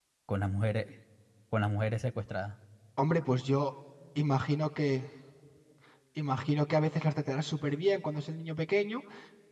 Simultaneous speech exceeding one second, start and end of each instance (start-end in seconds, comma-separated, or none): none